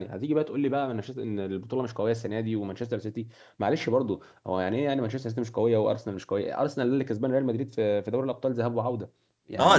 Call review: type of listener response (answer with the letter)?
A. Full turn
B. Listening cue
A